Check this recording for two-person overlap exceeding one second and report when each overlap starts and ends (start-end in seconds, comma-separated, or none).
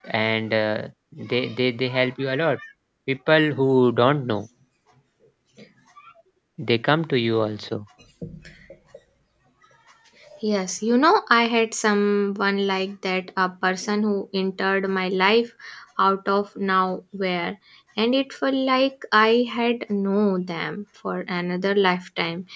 none